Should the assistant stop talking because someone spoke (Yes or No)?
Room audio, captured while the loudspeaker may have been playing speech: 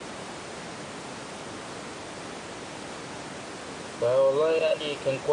Yes